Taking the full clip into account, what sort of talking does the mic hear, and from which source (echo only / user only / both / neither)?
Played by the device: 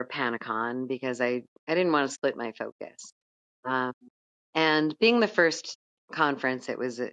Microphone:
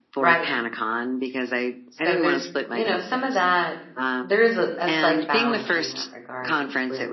both